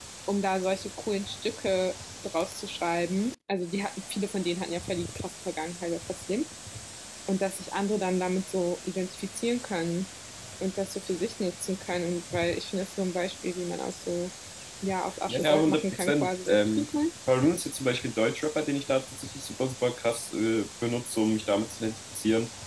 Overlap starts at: 15 s

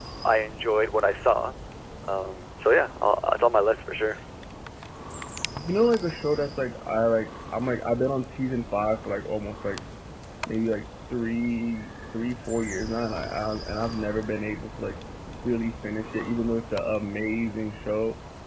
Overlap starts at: none

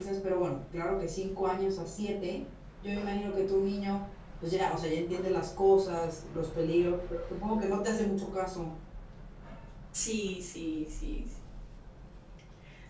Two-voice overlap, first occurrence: none

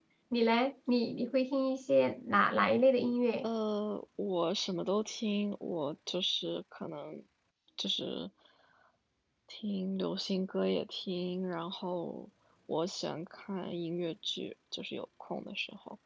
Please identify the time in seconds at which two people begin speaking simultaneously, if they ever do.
none

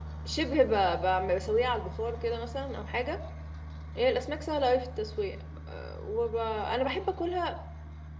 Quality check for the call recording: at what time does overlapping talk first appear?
none

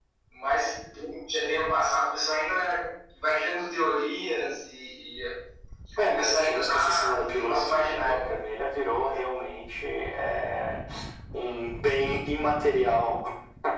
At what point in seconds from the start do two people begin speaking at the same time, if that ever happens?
6 s

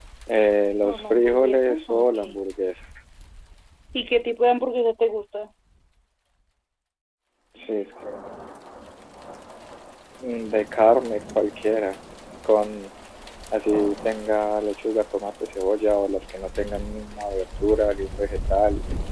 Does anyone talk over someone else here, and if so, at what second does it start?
1 s

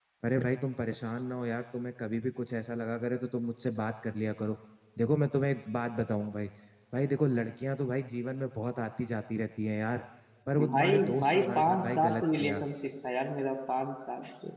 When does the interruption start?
11 s

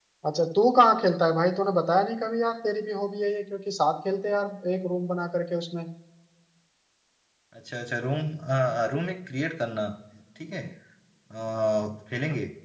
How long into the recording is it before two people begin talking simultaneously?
none

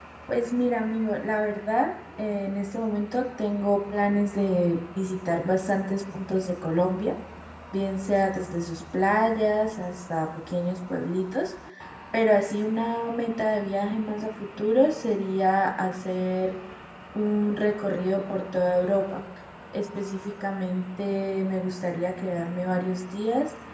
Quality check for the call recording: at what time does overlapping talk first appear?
none

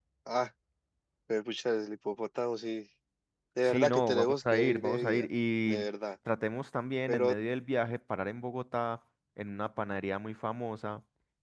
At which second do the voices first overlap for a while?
4 s

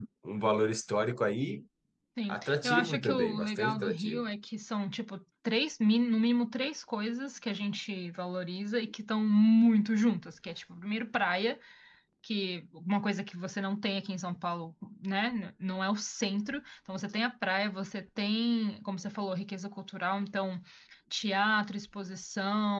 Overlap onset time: 2 s

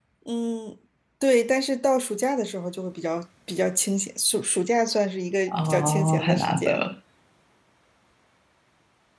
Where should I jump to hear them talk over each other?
5 s

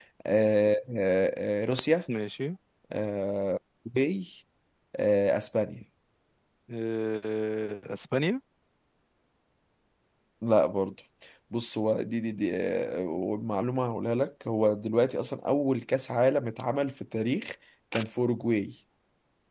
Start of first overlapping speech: none

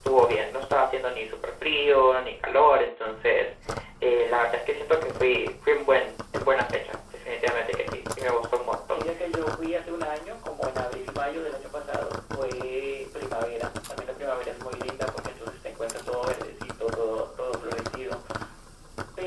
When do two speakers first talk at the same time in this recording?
none

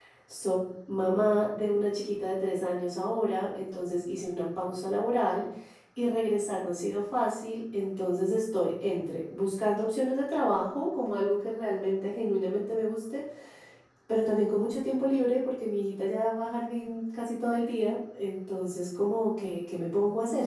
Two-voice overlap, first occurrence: none

